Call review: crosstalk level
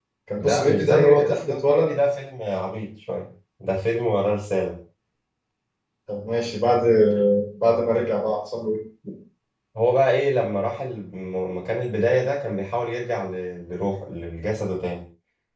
present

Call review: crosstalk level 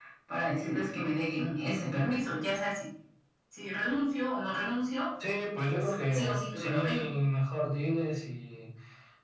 present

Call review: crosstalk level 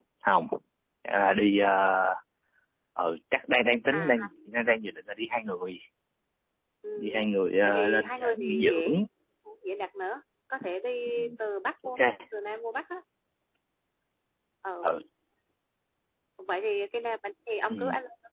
present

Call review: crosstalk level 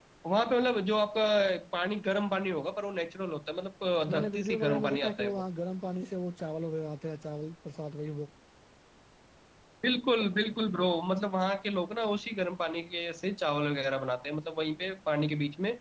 present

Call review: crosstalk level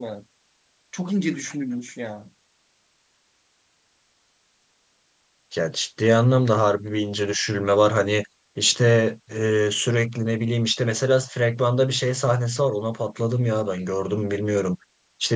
none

